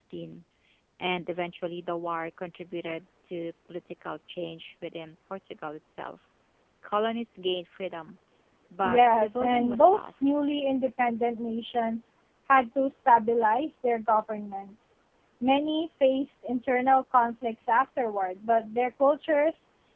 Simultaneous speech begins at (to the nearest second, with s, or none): 9 s